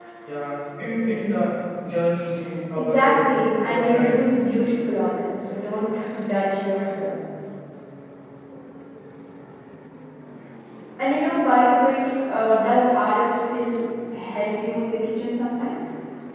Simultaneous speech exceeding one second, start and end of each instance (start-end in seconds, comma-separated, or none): 2.8-4.2